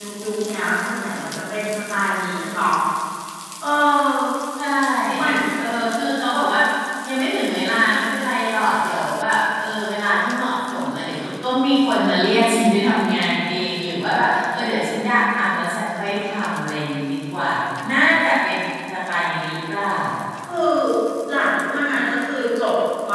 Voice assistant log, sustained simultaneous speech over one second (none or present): none